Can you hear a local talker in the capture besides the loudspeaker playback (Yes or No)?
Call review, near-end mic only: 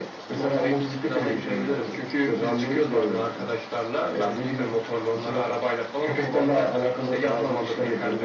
No